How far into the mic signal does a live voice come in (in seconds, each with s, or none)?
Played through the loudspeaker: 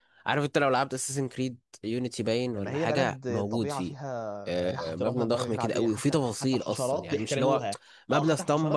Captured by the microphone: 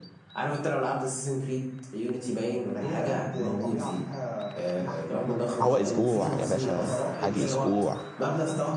5.6 s